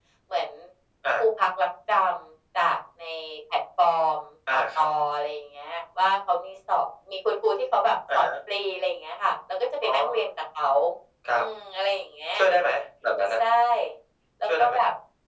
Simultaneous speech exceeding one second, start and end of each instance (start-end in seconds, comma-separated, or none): none